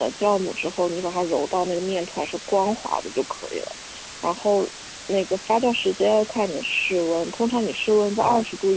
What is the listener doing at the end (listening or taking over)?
listening